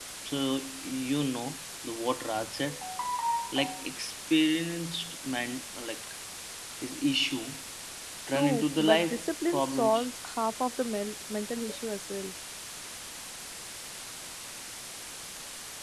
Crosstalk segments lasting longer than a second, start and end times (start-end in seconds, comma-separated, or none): 8.3-10.1